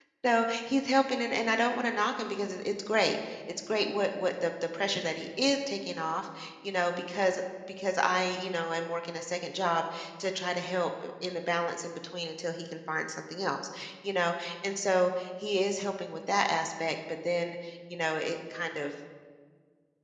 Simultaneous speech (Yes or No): No